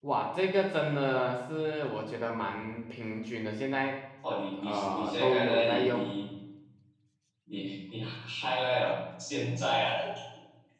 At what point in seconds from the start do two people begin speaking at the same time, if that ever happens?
5 s

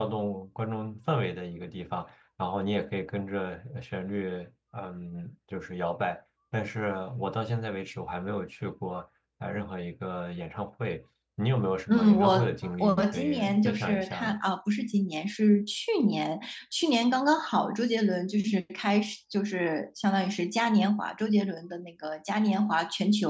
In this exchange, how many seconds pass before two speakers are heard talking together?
12 s

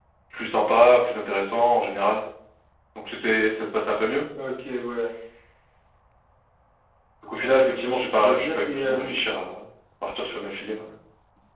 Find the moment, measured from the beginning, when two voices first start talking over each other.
7 s

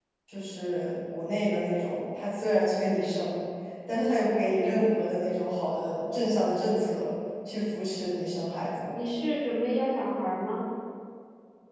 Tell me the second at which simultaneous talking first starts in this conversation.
none

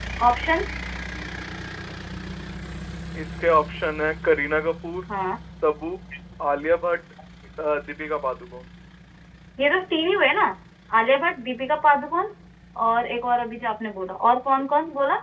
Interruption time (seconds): none

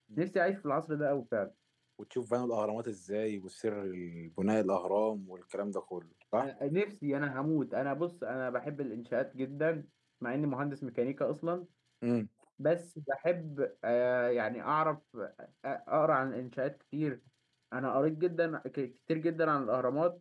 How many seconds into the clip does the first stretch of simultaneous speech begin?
none

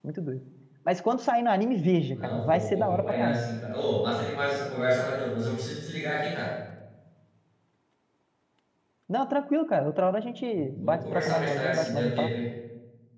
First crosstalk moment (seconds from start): 2 s

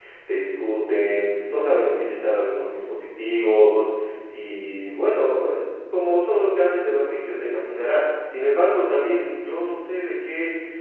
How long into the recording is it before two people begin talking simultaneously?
none

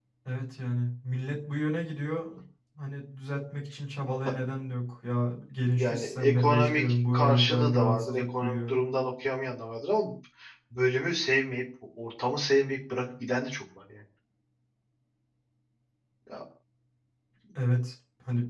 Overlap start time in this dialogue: 6 s

